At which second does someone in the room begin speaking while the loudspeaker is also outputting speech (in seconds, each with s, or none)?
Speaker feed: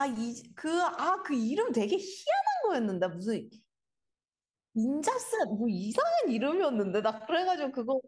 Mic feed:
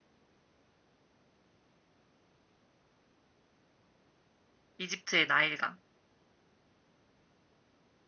4.8 s